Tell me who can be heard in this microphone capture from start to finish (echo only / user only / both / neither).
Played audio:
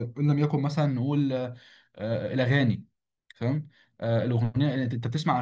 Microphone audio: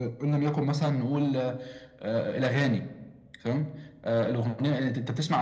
echo only